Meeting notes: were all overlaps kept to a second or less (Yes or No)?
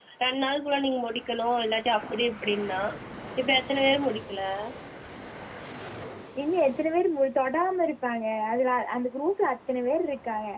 Yes